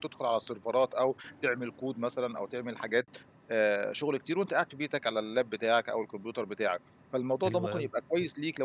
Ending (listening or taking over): listening